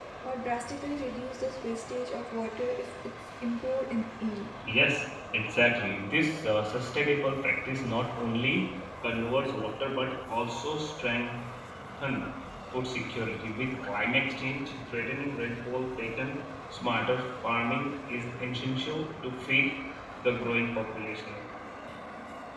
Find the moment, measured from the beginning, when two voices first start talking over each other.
none

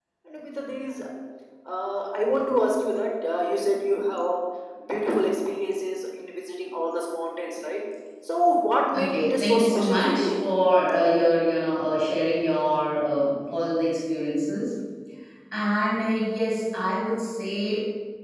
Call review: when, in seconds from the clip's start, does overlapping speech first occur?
8.9 s

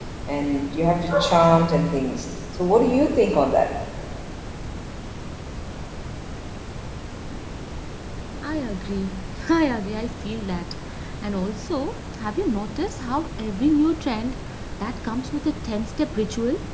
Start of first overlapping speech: none

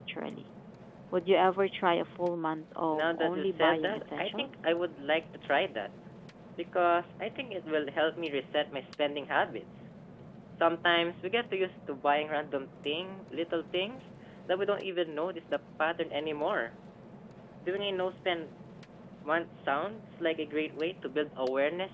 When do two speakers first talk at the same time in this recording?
2.9 s

